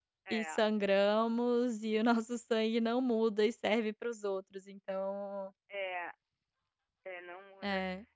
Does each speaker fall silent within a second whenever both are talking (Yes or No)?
Yes